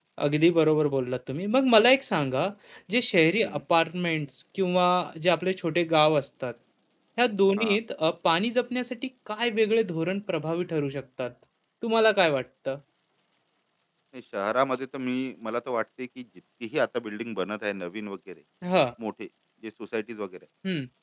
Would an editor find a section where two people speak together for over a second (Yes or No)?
No